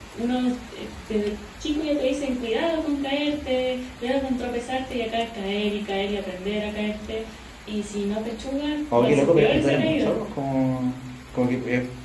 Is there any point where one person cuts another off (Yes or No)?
Yes